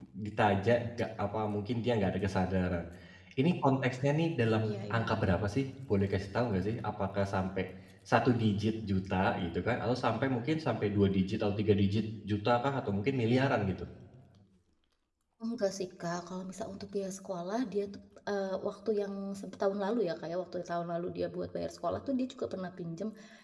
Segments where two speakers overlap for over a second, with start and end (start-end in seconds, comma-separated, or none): none